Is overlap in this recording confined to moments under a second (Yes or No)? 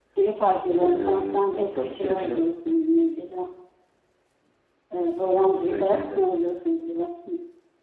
No